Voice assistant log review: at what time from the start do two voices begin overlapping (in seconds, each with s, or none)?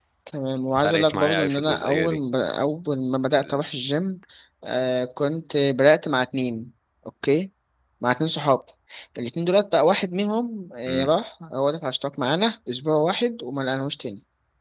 0.8 s